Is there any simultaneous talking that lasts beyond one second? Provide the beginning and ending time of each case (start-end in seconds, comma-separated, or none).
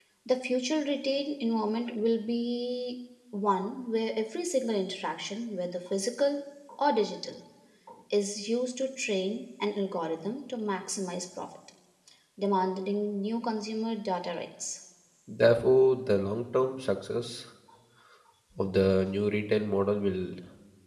none